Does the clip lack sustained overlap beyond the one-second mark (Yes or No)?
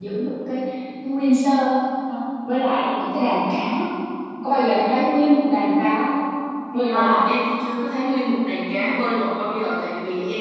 Yes